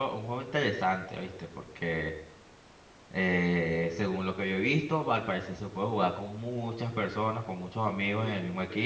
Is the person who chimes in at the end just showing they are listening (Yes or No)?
No